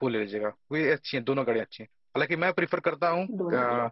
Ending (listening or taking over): listening